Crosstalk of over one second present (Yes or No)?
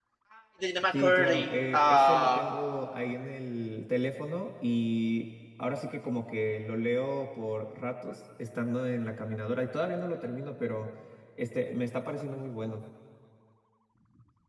Yes